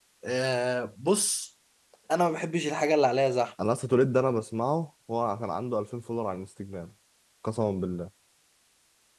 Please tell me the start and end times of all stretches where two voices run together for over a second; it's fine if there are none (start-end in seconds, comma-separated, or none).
none